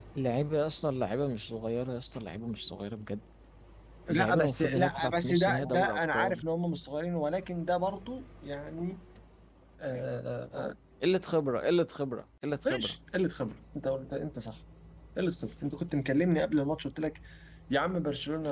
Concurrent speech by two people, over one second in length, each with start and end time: 4.1-6.4

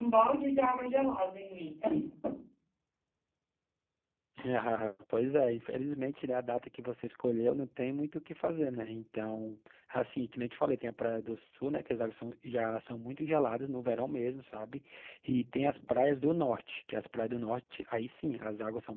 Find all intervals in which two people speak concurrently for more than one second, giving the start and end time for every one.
none

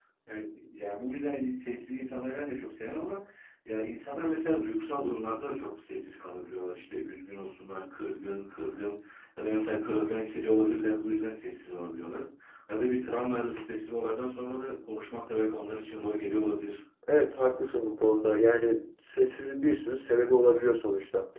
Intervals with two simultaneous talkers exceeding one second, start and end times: none

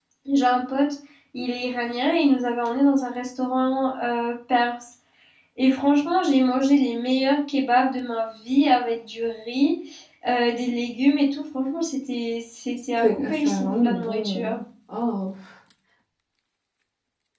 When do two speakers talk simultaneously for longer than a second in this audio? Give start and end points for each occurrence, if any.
13.0-14.6

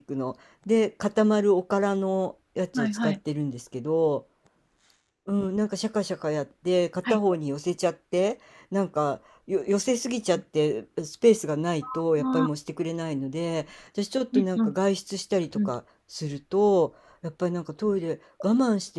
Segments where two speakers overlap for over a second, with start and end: none

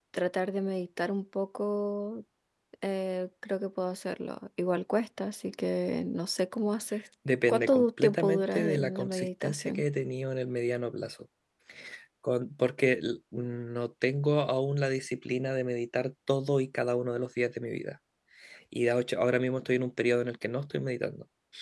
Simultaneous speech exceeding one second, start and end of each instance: 7.5-9.8

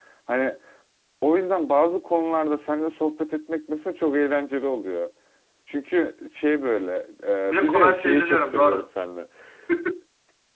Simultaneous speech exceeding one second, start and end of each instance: 7.5-8.9

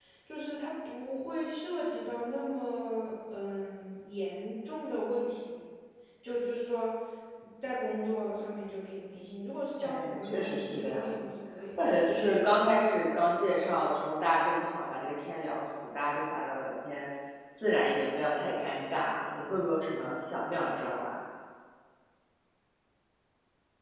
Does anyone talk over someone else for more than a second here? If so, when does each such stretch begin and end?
9.8-11.2

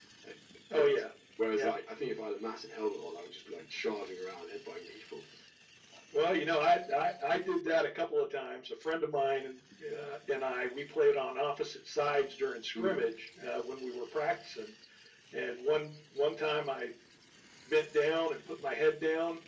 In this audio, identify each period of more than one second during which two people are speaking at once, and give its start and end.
none

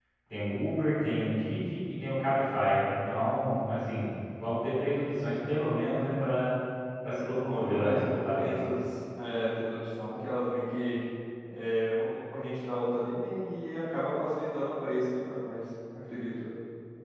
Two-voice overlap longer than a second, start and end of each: 7.4-8.6

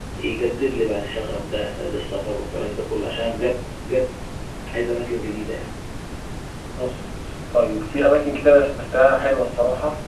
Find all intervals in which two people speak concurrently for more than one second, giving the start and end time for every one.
none

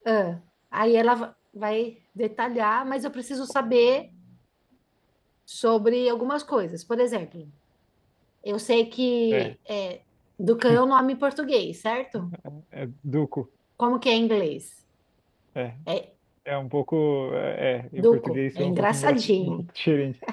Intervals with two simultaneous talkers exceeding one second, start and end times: 18.0-19.6

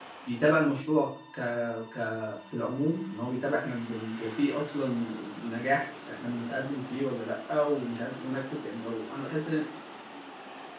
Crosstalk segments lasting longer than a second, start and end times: none

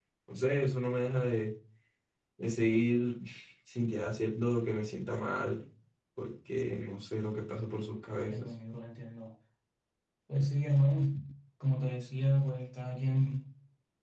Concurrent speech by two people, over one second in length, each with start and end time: none

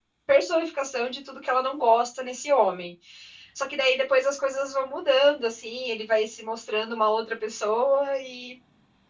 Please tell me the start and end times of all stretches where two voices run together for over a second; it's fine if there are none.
none

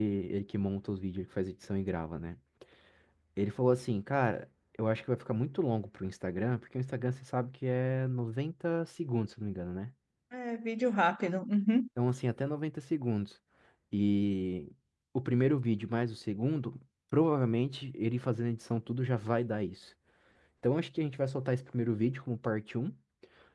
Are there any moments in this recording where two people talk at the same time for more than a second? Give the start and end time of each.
none

